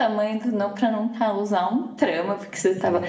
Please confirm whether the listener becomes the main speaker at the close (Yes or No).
No